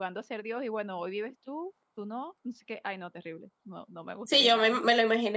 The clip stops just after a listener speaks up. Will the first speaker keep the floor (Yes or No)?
No